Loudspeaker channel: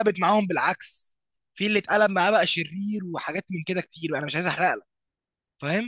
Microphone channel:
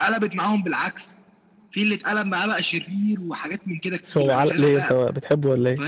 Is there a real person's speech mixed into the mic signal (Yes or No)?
Yes